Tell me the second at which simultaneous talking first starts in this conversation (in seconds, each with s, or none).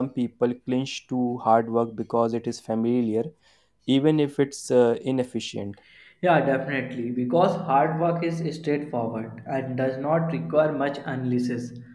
none